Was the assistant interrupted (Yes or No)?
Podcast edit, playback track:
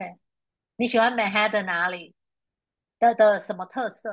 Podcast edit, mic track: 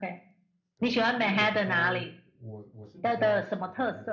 Yes